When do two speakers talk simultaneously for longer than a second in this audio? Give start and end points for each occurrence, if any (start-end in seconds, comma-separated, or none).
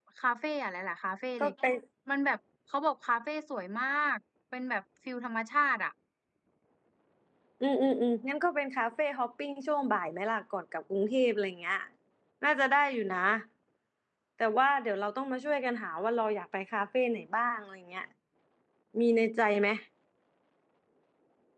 none